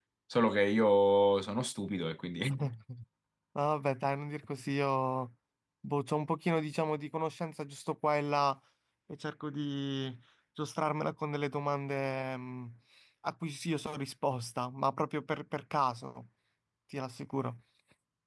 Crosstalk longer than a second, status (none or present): none